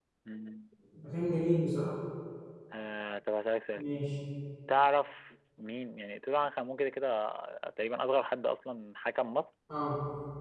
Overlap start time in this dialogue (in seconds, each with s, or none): none